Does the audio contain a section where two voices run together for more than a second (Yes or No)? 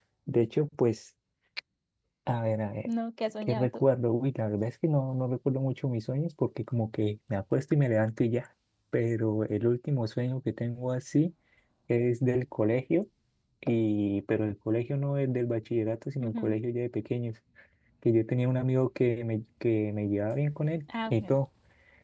No